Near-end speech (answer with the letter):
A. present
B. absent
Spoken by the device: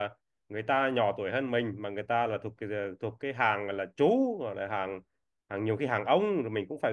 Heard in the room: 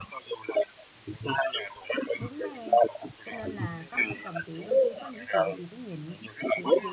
A